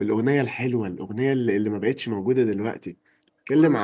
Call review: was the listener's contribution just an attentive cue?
Yes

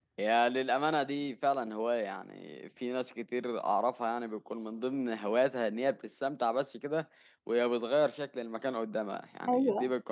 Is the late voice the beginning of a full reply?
No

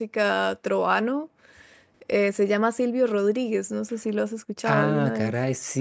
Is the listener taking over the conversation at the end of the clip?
Yes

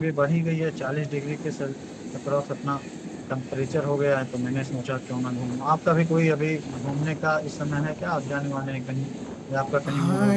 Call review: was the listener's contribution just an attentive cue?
No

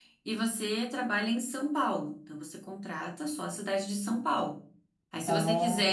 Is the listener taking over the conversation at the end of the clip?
No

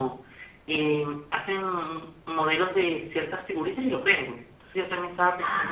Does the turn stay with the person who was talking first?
Yes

